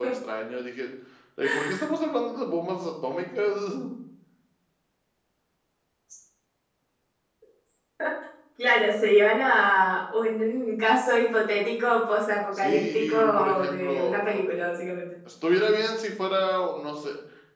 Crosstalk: present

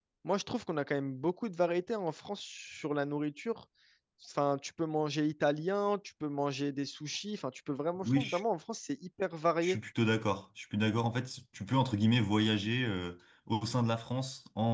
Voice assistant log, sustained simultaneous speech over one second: none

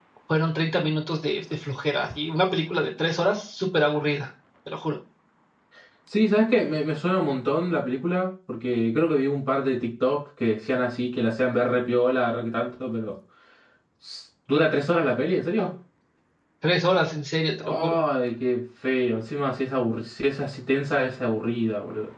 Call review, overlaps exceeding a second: none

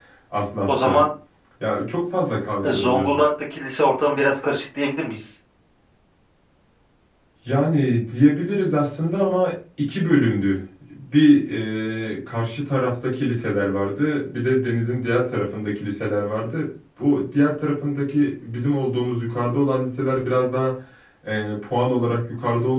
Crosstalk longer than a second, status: none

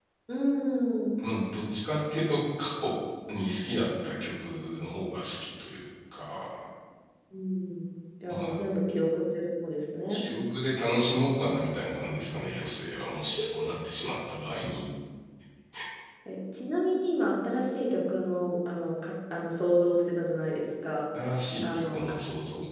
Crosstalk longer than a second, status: none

